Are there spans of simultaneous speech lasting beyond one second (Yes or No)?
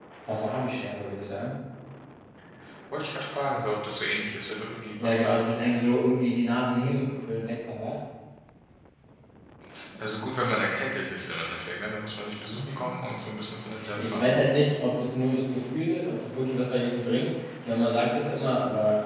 No